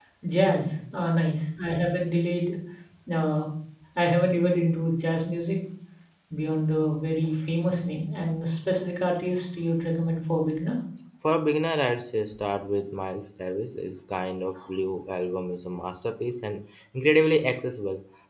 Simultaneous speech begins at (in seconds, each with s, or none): none